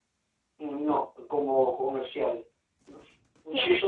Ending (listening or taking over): taking over